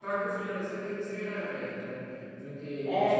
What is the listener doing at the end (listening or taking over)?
taking over